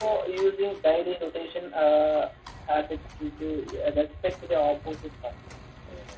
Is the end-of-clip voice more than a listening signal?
Yes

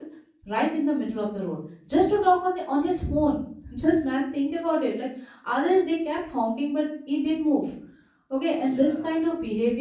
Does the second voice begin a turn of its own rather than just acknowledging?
No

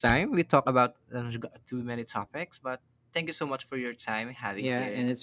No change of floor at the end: No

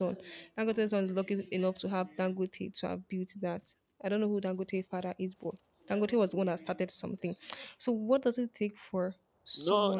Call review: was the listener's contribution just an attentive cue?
No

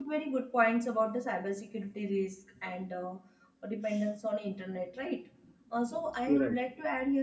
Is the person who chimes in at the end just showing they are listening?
Yes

